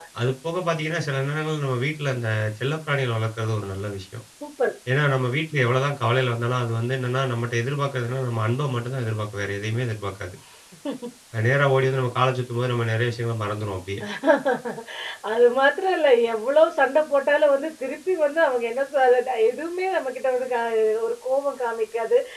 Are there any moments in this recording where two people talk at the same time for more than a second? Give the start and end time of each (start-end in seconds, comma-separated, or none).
none